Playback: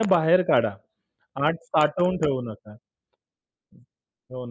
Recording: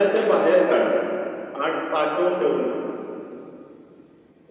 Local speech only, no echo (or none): none